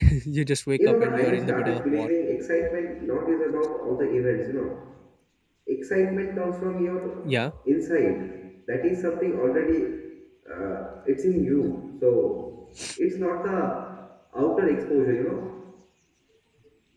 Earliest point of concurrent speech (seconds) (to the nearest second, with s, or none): 1 s